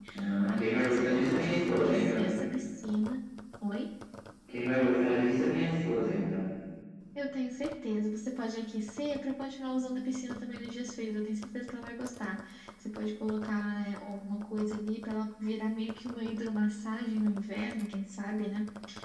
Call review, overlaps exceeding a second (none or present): present